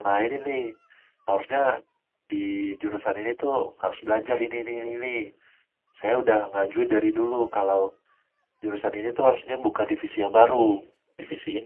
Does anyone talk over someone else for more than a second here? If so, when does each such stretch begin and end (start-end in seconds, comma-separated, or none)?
none